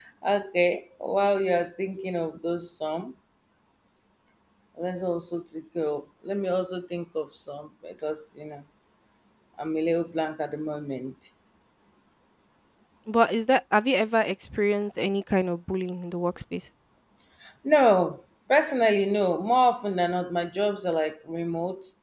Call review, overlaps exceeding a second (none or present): none